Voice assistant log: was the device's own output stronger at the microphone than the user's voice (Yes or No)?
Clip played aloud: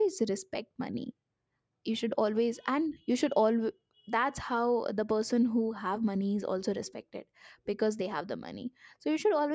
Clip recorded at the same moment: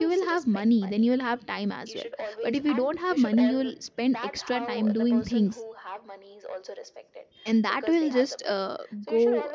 No